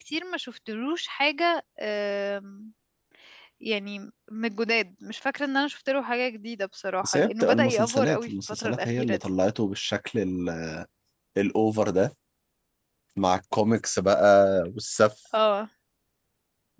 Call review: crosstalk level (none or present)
present